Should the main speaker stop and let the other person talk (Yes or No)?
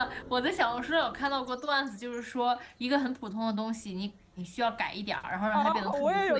Yes